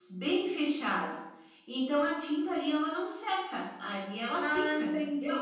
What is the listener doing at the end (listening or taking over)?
taking over